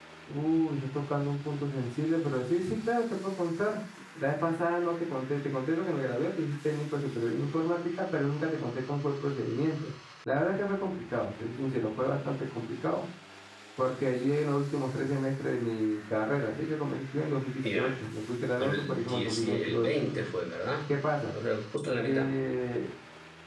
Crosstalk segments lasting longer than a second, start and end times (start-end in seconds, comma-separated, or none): 18.6-19.9